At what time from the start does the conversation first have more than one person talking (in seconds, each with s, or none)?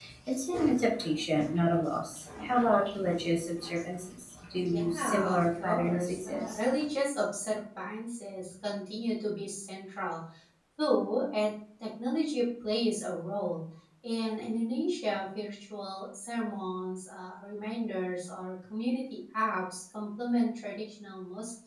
4.7 s